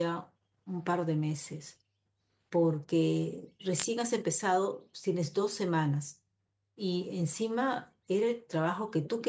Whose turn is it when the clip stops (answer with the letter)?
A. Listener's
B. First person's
B